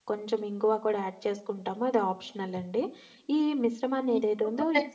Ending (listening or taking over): taking over